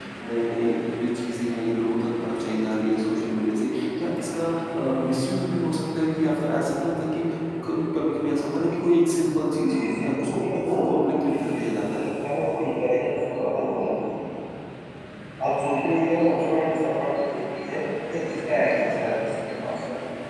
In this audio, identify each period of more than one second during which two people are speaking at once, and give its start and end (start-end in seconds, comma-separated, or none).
9.7-12.1